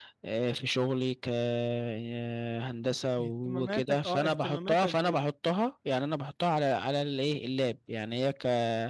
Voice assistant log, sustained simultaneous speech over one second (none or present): present